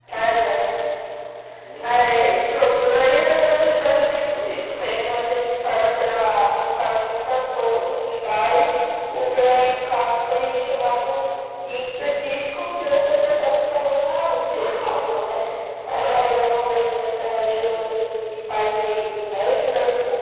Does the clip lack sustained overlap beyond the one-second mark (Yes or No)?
Yes